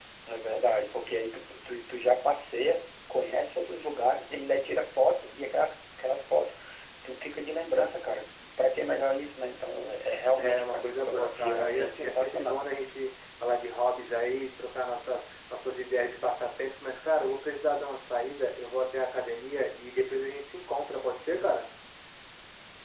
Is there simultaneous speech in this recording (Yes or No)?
Yes